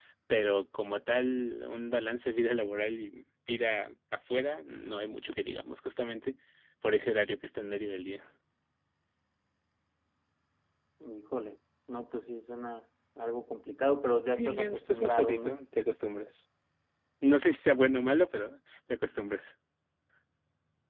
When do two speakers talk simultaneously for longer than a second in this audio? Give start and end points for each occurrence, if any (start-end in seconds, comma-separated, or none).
14.3-15.6